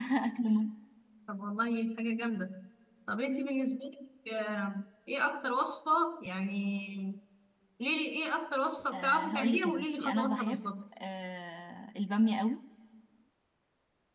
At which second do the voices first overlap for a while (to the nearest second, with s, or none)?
9 s